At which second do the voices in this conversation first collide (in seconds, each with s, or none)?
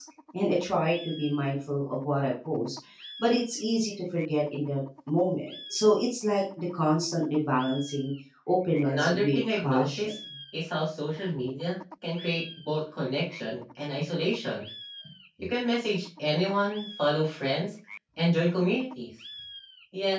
8.8 s